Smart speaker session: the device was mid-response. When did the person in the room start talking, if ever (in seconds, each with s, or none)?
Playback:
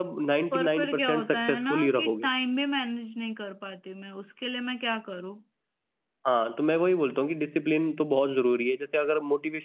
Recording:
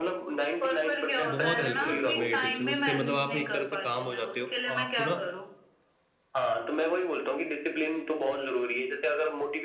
1.3 s